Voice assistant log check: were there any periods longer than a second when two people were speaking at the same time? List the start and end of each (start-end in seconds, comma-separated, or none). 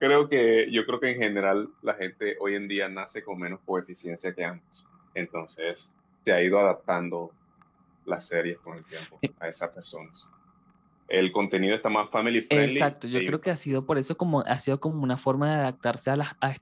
12.5-13.8